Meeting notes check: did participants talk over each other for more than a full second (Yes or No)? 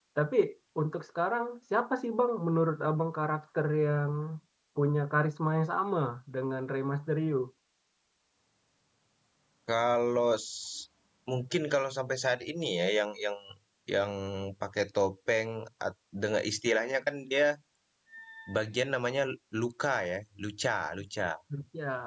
No